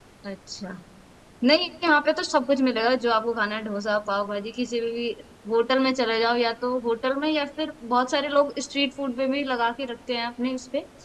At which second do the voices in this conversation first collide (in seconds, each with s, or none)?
none